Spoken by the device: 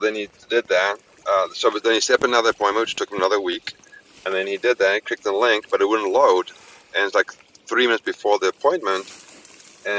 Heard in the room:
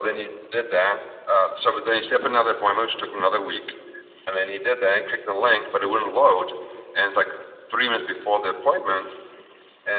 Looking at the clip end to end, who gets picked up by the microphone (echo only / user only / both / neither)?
echo only